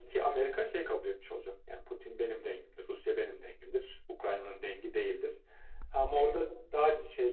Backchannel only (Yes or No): Yes